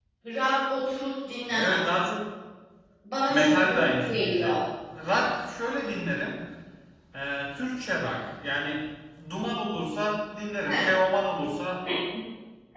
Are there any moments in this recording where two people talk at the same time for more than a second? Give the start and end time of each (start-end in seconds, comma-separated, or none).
3.3-4.6